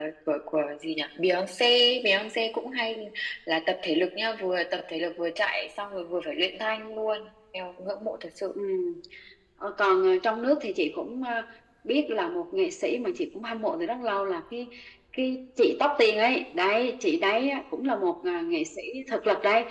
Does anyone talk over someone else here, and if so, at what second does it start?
none

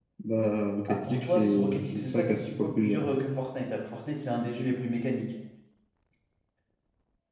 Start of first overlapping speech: 0.9 s

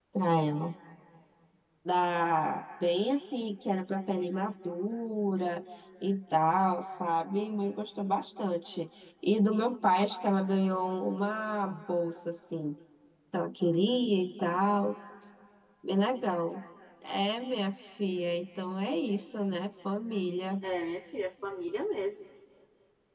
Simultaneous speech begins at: none

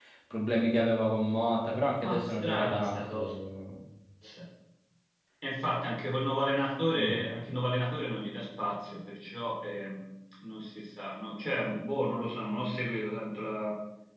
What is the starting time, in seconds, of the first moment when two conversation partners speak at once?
2.0 s

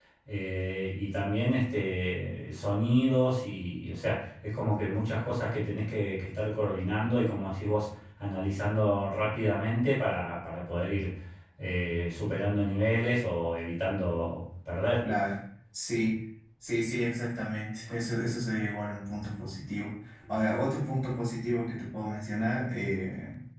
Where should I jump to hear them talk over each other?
none

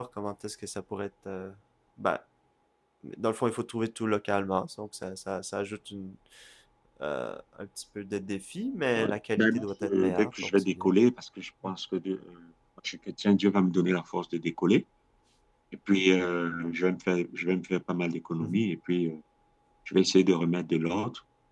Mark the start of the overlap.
9.0 s

